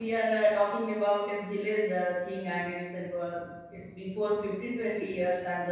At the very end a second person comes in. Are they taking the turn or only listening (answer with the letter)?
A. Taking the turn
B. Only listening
B